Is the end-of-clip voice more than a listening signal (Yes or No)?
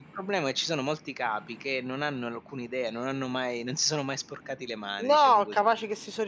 Yes